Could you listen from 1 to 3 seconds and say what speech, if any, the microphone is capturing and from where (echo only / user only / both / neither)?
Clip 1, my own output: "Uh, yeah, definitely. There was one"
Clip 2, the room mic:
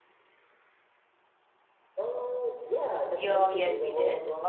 echo only